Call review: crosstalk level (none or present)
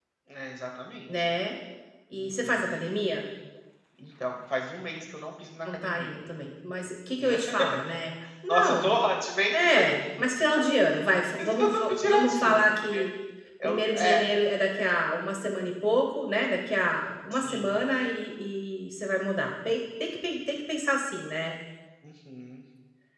present